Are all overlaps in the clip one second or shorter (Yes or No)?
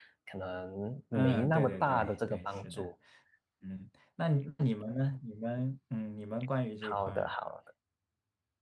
No